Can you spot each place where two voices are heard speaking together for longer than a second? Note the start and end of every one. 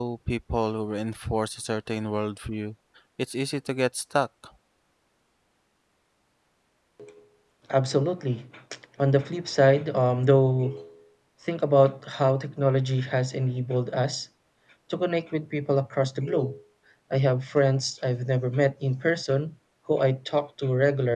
none

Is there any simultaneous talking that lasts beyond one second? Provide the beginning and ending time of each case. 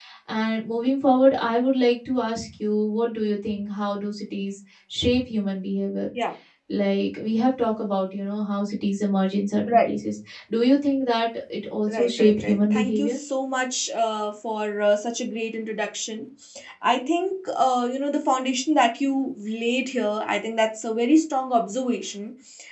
11.9-13.2

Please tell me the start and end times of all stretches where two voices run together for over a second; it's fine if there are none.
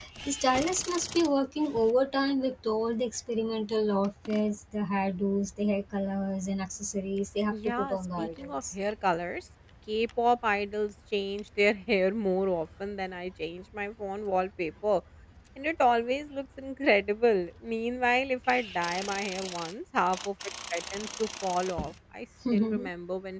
7.5-8.7

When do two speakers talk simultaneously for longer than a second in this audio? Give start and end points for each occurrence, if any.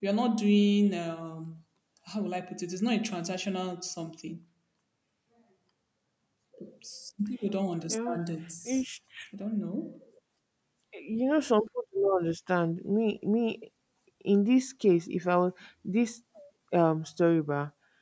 none

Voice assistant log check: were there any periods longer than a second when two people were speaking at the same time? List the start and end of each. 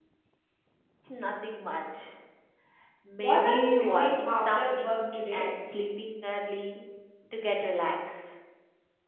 3.2-5.5

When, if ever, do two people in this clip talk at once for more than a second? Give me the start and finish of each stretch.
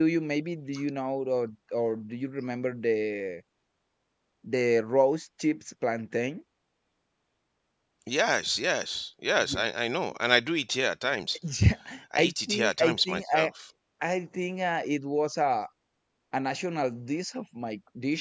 12.2-13.5

